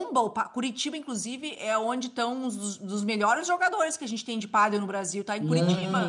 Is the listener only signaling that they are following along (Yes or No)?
No